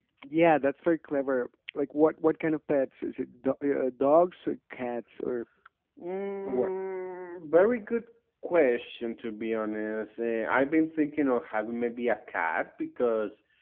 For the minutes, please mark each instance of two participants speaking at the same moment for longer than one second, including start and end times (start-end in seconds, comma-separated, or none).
none